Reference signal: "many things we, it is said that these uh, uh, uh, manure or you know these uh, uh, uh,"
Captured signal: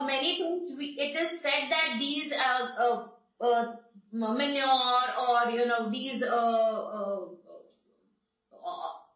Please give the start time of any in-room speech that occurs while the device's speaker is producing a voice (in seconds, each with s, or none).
none